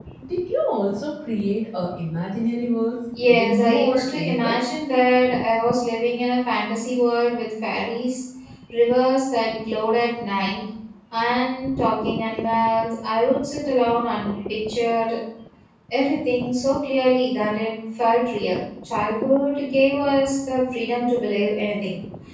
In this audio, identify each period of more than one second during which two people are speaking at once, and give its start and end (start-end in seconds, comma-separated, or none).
3.3-4.5